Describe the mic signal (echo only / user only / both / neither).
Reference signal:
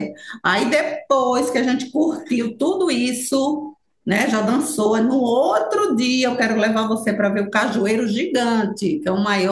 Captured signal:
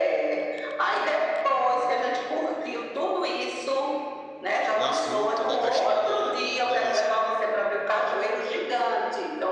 both